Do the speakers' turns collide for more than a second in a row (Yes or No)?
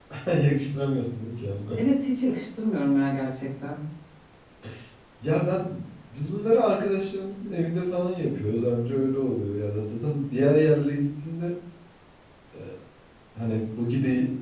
No